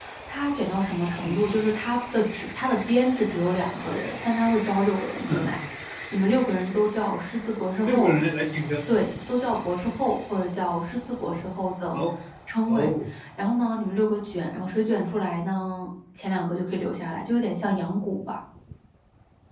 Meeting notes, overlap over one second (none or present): none